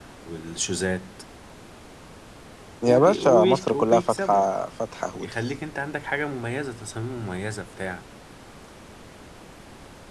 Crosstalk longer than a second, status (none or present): present